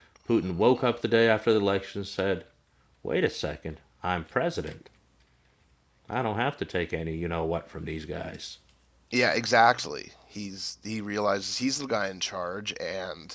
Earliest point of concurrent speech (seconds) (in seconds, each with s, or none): none